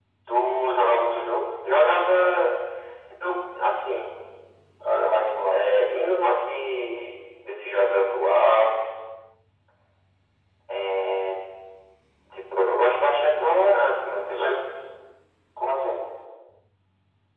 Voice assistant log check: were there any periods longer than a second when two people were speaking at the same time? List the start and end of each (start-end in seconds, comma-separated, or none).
none